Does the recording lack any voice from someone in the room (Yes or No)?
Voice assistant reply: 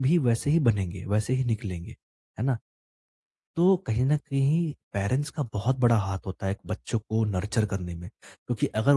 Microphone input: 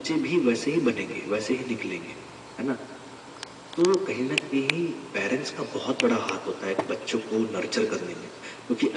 Yes